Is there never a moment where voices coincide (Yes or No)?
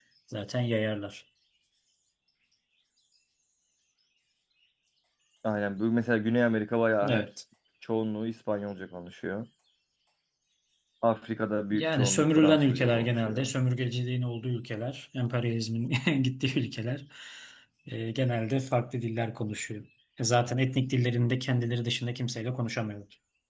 No